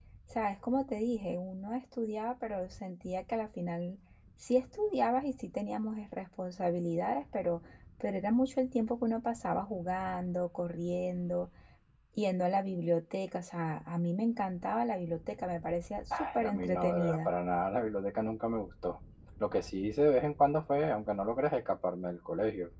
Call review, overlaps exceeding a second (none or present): present